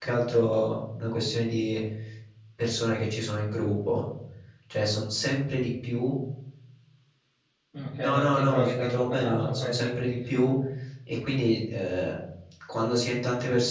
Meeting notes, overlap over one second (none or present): present